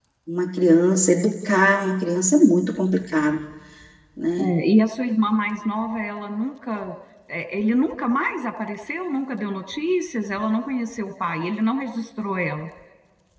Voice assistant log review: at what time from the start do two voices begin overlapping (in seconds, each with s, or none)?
none